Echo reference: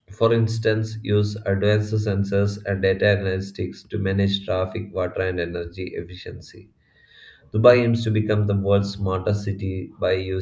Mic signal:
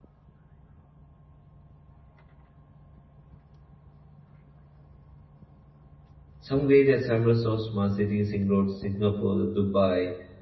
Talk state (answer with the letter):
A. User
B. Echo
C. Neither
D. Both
A